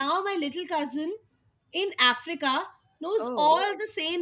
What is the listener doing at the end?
listening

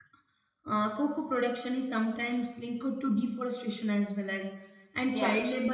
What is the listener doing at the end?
listening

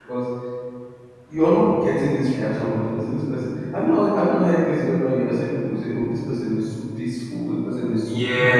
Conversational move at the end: taking over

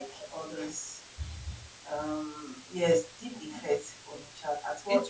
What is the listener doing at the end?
taking over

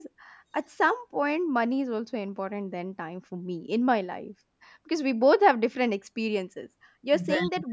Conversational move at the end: listening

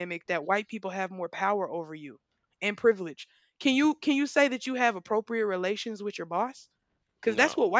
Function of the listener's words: listening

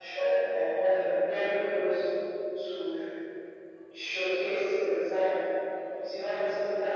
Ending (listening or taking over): listening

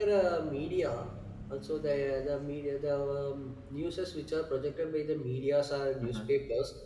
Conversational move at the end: listening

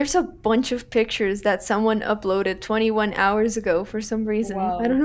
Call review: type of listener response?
taking over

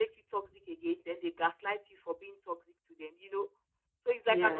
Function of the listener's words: listening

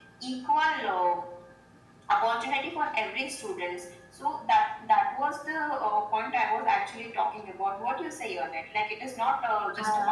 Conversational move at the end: listening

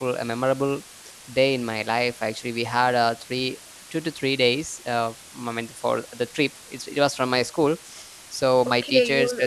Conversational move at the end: taking over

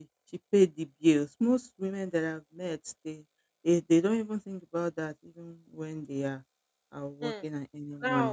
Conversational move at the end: taking over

